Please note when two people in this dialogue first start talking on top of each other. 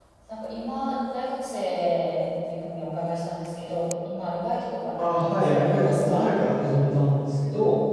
5.0 s

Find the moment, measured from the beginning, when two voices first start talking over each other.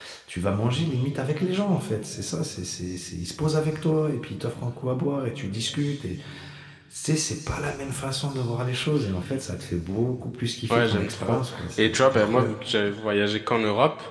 10.7 s

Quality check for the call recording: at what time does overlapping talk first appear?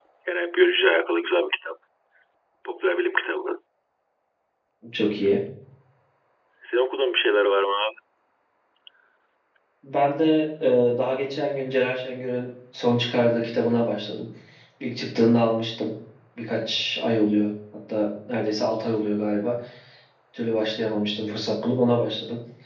none

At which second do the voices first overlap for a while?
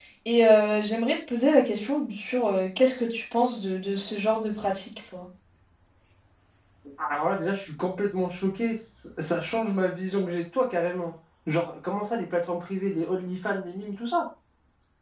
none

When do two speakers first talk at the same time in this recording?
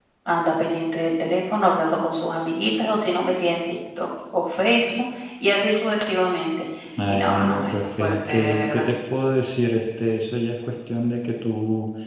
7.1 s

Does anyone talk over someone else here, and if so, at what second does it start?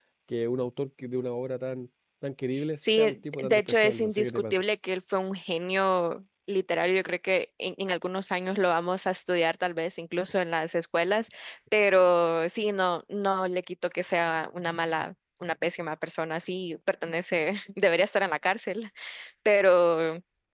2.8 s

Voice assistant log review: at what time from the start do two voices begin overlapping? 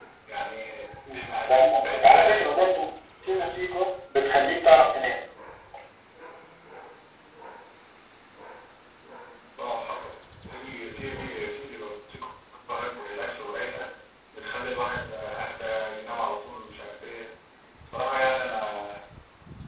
1.1 s

